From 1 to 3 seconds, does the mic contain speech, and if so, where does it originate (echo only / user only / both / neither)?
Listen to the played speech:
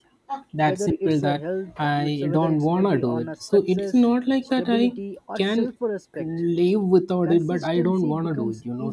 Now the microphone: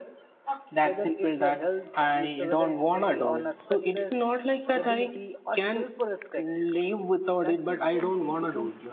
echo only